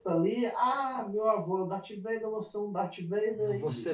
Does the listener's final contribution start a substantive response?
Yes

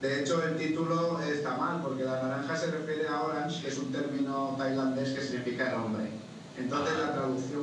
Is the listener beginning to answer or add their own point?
No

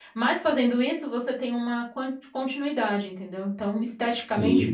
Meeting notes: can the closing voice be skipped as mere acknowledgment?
No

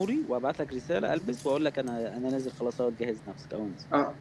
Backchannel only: No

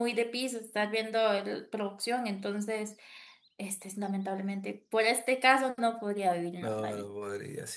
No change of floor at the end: No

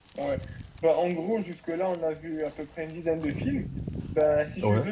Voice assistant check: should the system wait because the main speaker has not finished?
Yes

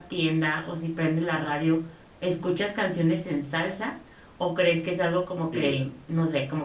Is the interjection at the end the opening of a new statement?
No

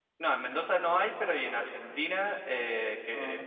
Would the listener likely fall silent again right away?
Yes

